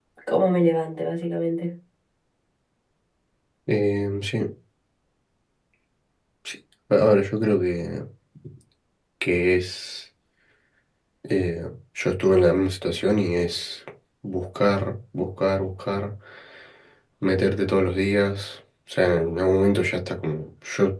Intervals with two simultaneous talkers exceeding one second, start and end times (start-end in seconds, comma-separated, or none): none